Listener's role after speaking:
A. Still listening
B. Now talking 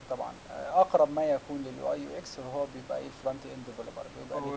B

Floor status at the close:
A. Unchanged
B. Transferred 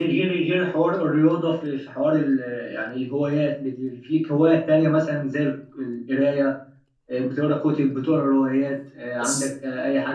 A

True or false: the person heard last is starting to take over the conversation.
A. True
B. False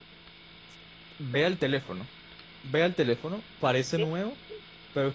B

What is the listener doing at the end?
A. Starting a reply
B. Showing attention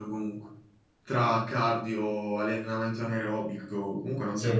A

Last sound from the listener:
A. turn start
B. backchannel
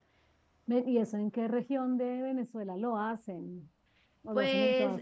A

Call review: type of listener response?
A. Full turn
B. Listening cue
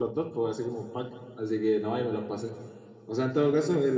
B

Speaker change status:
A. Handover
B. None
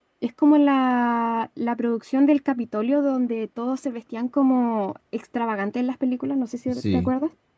A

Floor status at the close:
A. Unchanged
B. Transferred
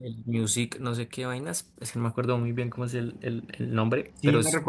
B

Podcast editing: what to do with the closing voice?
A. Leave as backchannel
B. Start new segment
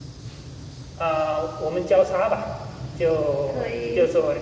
A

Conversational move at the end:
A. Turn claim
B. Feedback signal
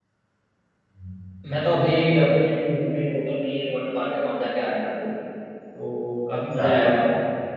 B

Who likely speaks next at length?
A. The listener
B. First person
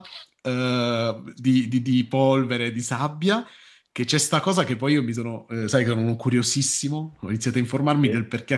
B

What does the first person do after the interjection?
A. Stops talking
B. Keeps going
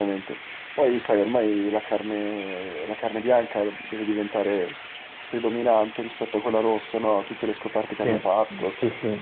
A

